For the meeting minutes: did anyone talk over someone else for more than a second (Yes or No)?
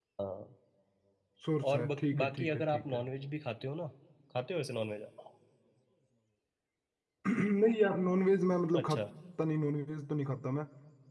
Yes